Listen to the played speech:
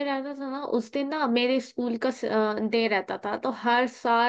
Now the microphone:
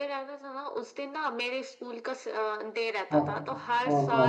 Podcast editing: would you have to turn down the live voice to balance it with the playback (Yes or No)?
Yes